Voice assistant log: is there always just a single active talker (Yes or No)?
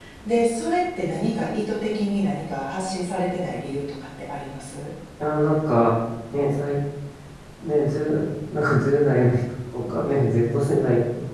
Yes